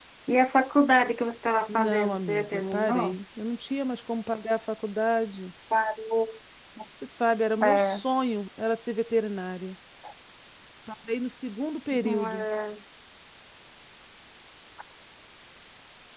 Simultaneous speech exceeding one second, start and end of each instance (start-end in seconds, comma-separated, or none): 1.7-3.2